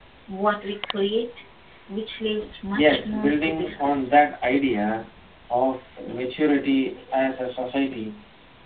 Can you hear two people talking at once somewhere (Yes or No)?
Yes